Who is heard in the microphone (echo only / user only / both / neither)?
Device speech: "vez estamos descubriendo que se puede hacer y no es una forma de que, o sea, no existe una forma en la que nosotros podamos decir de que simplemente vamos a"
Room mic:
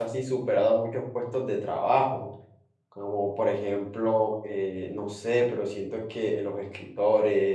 user only